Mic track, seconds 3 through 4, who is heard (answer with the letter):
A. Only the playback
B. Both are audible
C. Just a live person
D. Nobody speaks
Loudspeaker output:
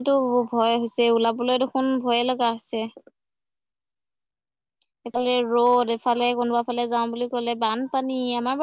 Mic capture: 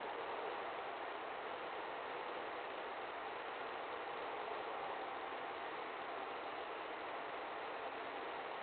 D